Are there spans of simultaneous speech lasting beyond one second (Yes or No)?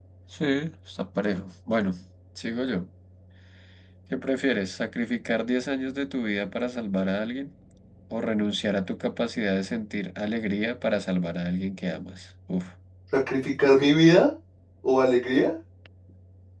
No